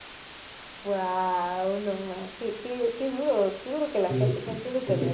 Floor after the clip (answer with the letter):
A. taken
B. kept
A